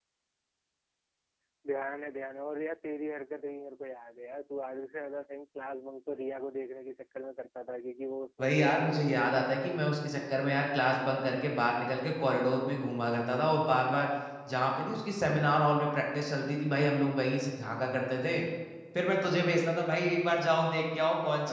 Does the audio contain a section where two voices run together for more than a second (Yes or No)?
Yes